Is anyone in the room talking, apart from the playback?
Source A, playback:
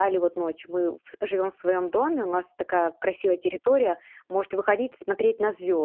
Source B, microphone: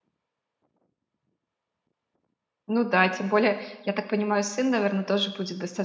Yes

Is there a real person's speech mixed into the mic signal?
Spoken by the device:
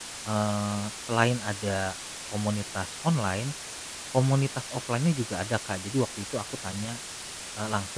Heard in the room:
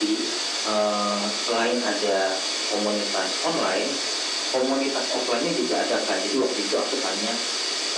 No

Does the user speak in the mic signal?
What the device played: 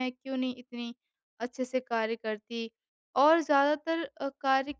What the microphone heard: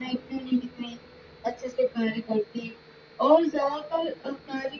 No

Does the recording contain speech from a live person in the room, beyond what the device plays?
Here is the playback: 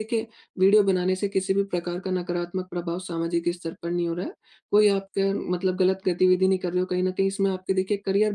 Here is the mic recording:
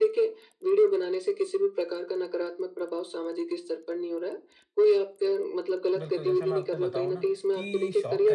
Yes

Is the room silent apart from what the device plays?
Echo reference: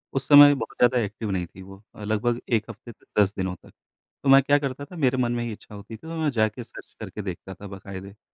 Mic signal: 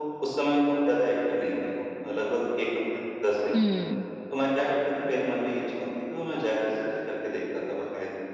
No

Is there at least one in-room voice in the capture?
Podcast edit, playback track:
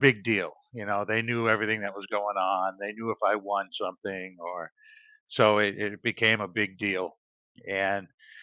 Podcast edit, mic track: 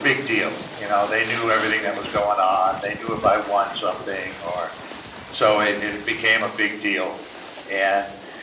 No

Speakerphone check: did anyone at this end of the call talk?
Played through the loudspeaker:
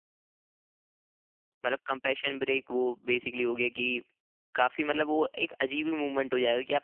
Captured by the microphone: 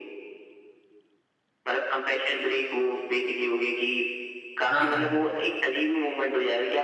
Yes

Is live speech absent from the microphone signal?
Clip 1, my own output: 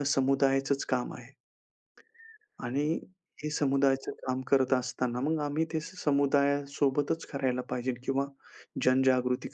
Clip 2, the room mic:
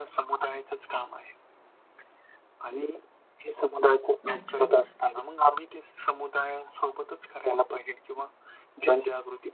No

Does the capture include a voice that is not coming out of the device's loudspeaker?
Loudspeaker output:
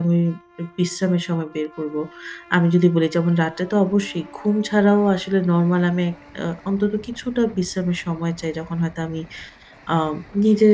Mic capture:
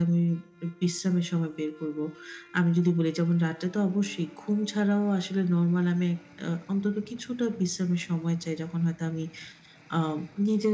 No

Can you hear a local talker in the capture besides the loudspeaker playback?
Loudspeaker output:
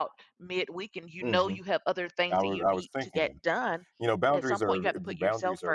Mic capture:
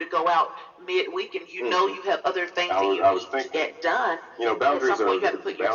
No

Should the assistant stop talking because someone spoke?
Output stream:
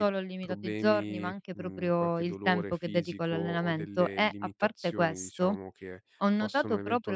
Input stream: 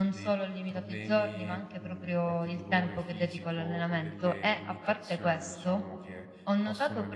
No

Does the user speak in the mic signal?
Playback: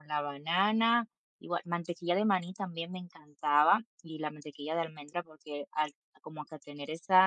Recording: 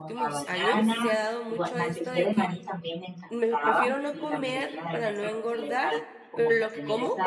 Yes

